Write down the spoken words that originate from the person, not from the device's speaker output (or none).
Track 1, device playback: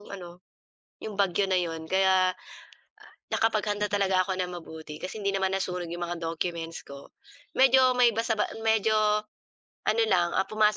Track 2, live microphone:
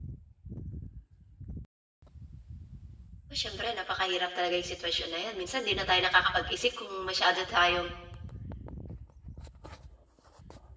Oh, siyempre napakahirap talaga yung sitwasyon na 'yan. Minsan 'di na tayo nakakapag-isip kung masyado tayong